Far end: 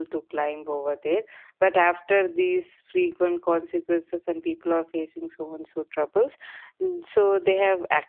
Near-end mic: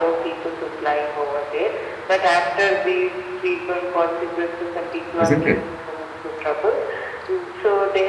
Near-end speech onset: 5 s

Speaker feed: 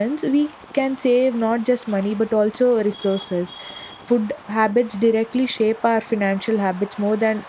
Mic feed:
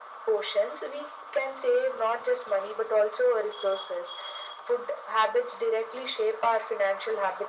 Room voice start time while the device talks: none

